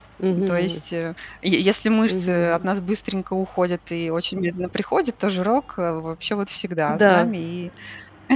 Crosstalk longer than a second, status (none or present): none